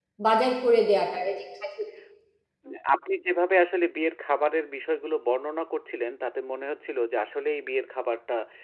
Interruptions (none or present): none